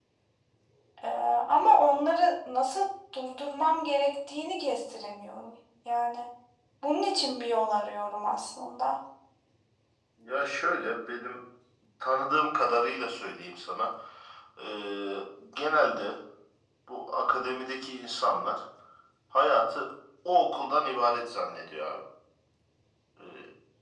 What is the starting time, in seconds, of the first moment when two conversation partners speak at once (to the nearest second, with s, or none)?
none